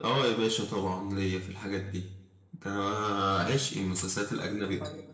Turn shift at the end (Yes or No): No